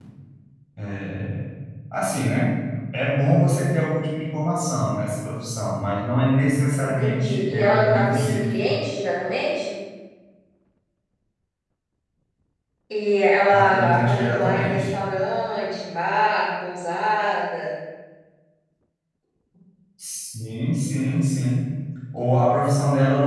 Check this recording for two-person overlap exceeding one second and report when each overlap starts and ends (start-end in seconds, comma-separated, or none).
6.8-8.6, 13.5-14.9